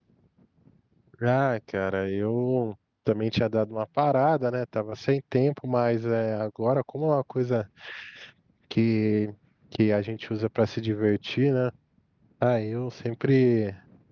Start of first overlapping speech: none

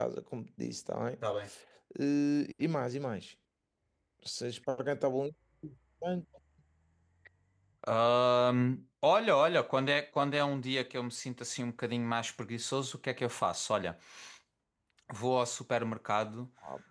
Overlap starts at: none

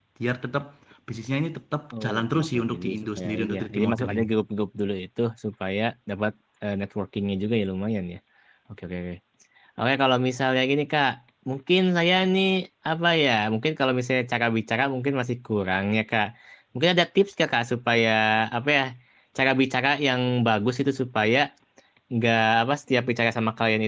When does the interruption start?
1.9 s

